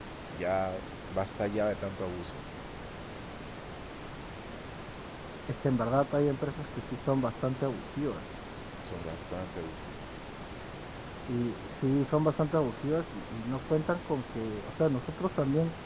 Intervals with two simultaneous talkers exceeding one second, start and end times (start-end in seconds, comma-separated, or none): none